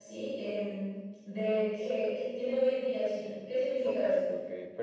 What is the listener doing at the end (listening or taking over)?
taking over